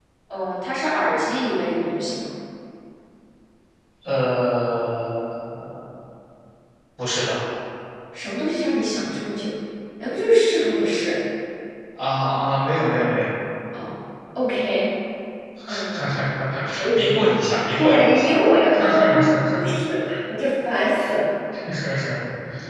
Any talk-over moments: Yes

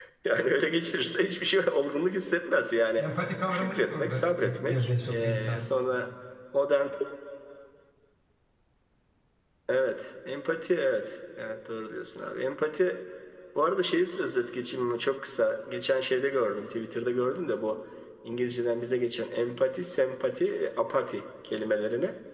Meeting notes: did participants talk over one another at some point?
Yes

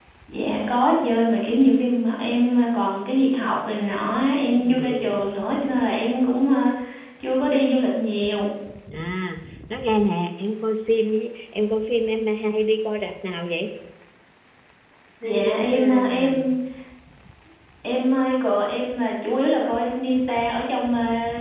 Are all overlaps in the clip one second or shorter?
No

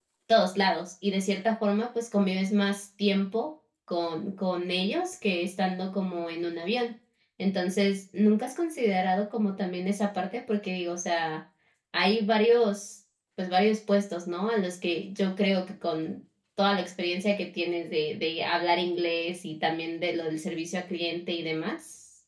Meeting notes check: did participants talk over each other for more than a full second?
No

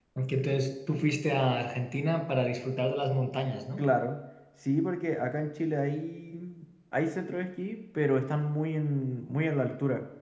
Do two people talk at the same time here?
No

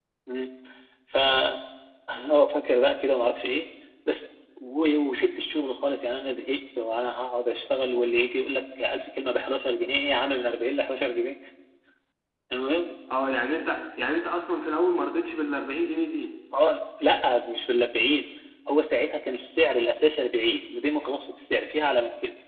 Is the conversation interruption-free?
Yes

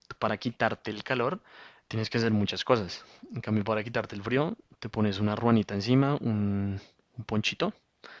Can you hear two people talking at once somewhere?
No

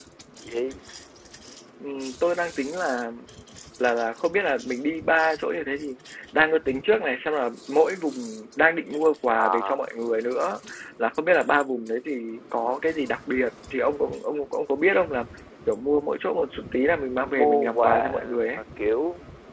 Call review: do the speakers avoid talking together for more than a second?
No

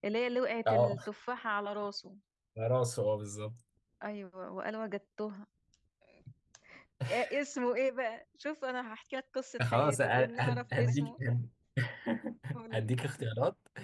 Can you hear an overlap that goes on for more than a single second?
Yes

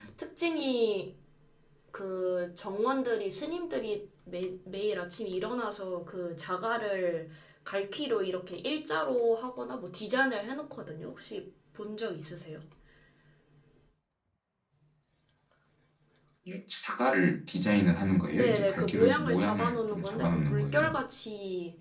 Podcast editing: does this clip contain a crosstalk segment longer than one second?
Yes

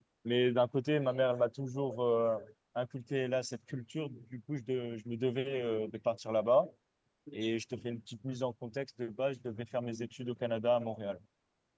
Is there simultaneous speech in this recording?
No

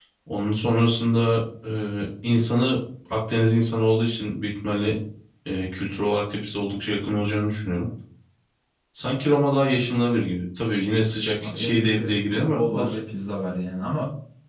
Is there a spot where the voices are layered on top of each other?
Yes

